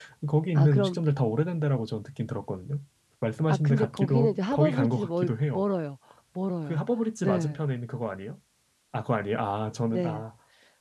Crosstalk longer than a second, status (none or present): present